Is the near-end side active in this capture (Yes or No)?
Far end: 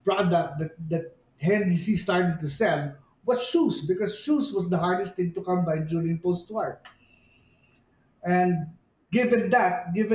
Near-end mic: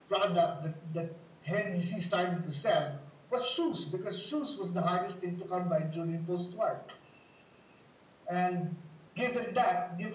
No